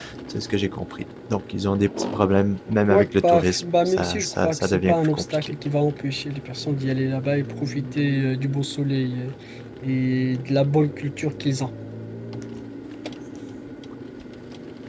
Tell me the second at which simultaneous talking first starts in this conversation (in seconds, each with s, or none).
2.9 s